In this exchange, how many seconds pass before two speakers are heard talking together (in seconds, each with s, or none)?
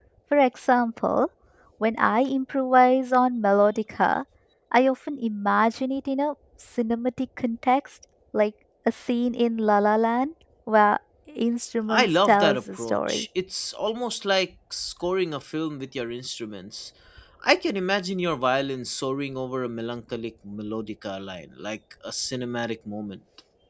11.9 s